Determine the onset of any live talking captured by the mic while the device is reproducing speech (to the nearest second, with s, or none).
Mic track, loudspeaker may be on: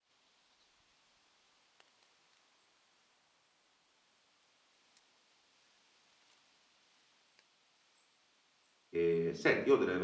9 s